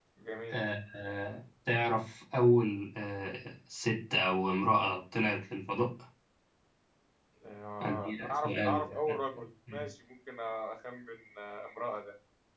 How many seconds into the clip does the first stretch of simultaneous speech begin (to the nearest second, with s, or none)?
8 s